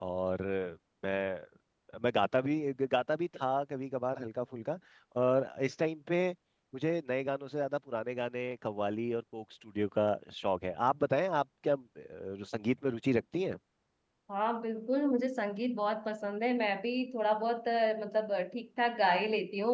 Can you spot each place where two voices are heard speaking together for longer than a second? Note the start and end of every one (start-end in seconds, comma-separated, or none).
none